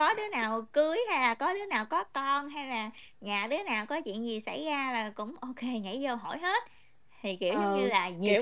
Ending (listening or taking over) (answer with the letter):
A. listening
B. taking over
B